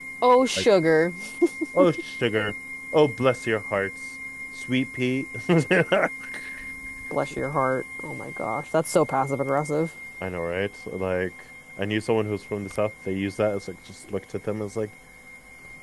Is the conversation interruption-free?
Yes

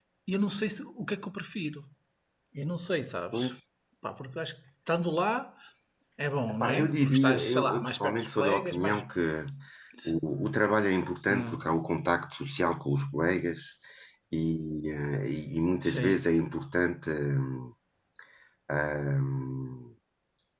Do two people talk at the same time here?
Yes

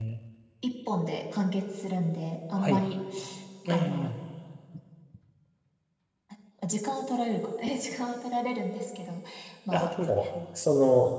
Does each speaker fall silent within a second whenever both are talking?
Yes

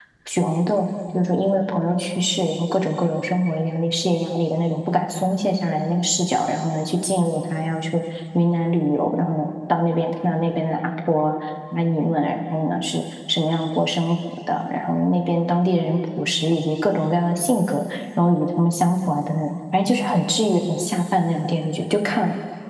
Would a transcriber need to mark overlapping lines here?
No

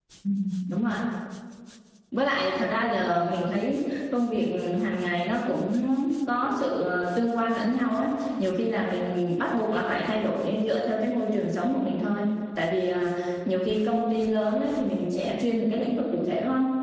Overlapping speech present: No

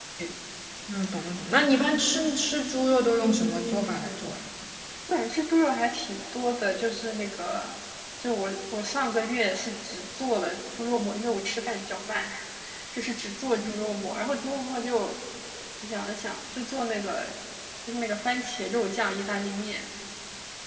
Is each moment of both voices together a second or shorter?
Yes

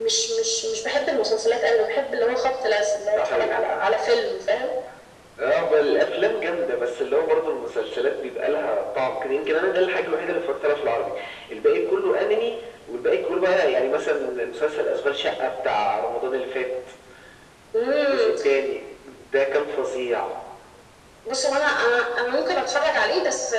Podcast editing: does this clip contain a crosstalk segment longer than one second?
No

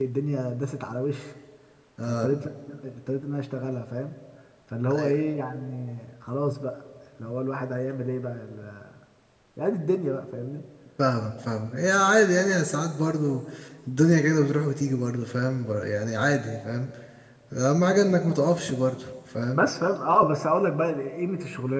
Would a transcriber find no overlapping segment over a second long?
Yes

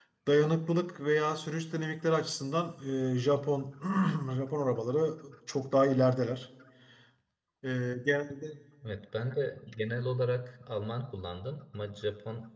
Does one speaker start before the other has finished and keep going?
No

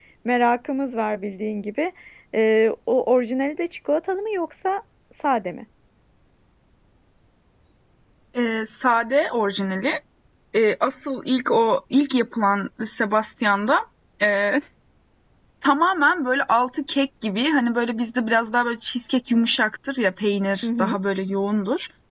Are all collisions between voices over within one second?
Yes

